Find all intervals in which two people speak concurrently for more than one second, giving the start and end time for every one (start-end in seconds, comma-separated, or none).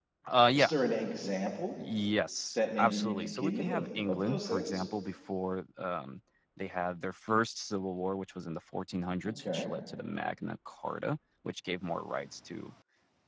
2.6-4.8